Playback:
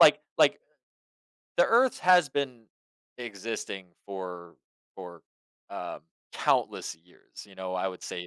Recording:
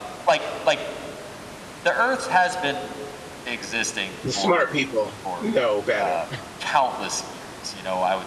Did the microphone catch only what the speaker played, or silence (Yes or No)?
No